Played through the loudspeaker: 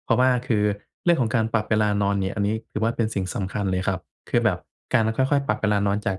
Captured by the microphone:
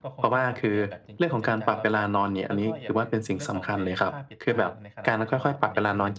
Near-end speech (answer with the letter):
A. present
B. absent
A